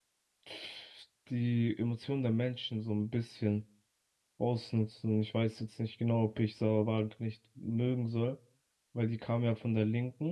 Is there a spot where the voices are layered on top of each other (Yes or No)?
No